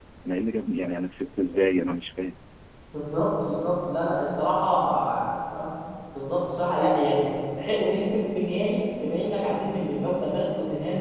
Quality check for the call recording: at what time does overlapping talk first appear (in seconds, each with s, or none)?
none